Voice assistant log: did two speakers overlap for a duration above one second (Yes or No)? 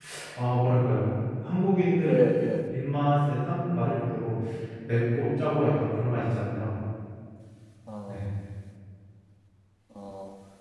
No